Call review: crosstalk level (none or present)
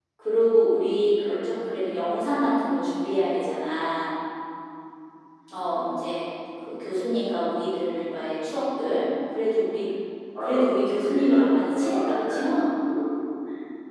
present